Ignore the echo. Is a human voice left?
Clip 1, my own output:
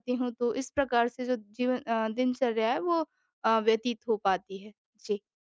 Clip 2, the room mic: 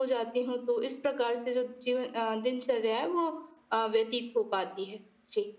No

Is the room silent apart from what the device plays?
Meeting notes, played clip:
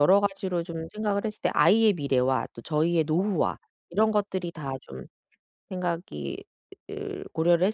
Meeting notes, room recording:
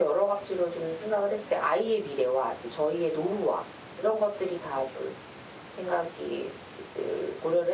Yes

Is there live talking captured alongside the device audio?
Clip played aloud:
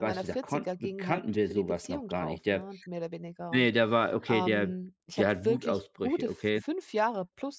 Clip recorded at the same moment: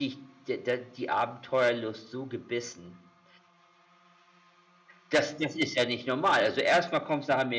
Yes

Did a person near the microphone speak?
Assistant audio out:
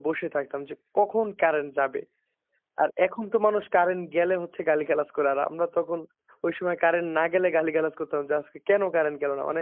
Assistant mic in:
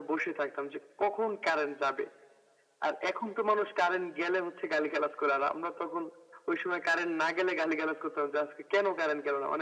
No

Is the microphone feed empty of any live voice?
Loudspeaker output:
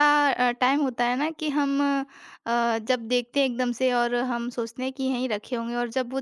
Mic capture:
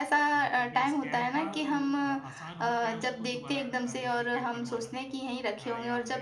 No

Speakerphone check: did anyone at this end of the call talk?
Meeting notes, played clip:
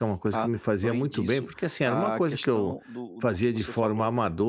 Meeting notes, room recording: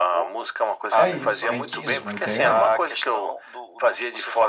Yes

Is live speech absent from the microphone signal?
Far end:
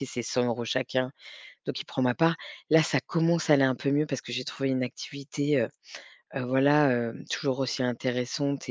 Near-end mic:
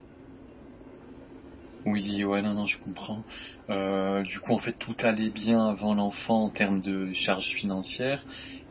No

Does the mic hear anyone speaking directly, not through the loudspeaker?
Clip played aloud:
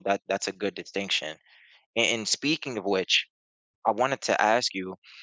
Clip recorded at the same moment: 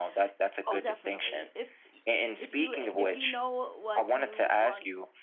Yes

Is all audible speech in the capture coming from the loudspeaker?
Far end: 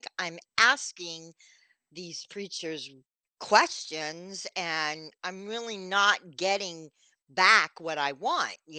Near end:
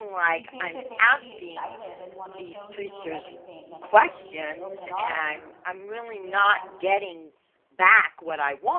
No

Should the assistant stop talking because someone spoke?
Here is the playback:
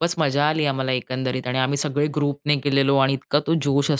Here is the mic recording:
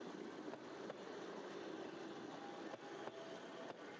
No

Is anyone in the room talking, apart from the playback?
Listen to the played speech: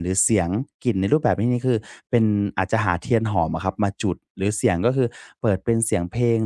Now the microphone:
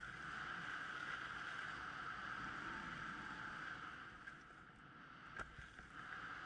No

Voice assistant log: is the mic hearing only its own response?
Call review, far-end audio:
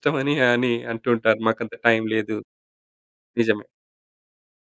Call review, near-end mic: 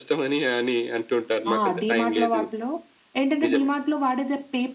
No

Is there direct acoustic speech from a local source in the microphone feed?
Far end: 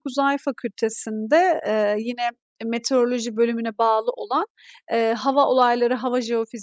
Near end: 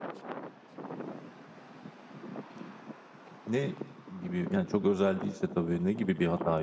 Yes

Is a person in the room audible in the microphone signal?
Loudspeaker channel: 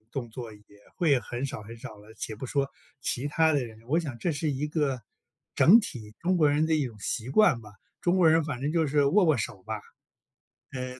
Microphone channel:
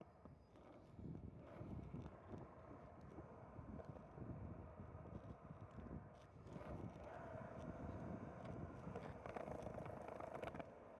No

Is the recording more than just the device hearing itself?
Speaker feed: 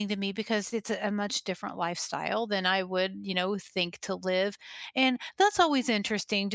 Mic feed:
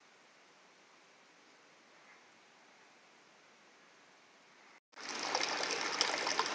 No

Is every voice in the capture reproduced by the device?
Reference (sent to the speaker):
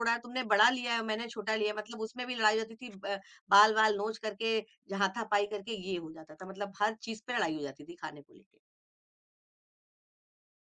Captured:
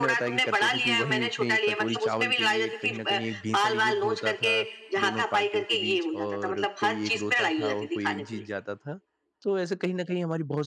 No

